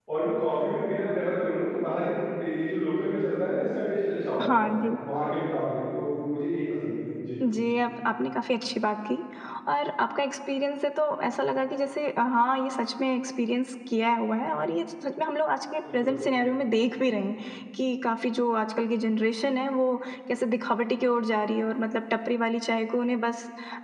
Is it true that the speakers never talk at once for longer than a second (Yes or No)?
Yes